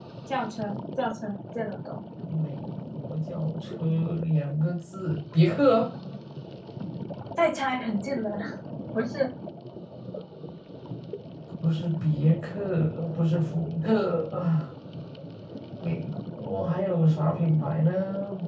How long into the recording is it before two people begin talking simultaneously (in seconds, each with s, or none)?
none